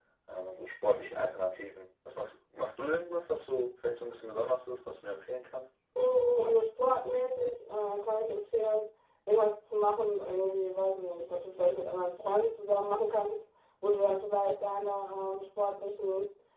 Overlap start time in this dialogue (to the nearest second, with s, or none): none